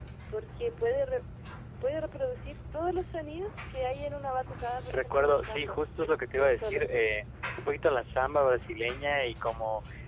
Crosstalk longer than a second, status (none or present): present